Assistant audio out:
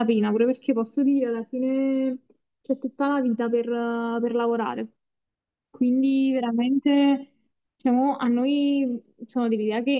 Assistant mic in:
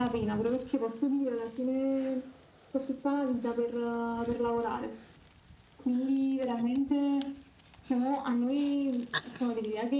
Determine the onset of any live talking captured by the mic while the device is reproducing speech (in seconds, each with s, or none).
none